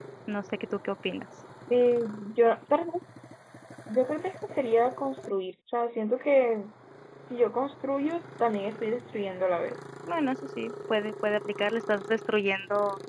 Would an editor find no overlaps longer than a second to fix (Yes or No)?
Yes